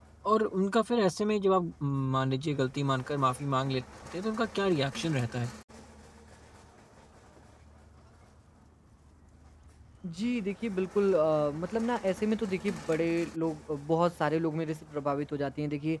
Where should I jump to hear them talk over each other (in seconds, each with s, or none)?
none